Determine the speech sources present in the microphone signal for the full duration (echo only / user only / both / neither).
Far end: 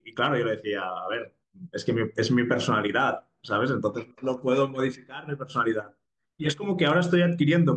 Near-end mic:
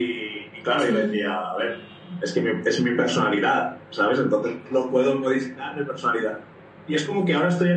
both